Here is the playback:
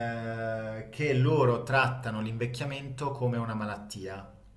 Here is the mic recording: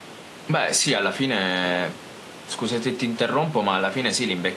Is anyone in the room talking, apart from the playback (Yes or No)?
Yes